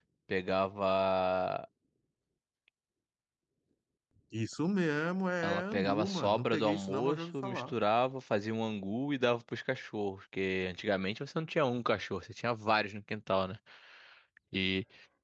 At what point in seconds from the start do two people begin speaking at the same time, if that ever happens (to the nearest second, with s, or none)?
5 s